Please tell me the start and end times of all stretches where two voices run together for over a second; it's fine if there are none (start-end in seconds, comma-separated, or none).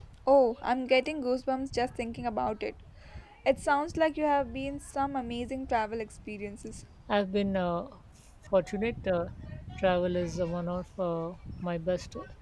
none